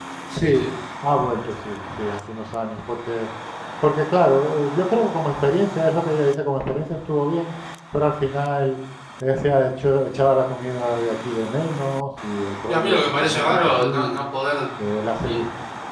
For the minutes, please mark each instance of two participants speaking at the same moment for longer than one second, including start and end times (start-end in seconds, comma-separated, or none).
12.7-14.2